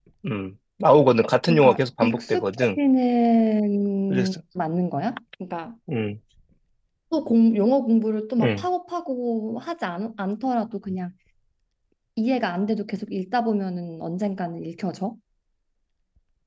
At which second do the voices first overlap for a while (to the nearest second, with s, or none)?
1 s